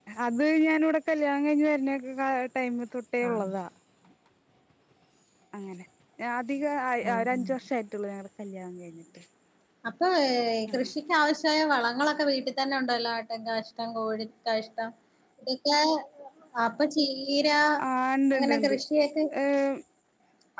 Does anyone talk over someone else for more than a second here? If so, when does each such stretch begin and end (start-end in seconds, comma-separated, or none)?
none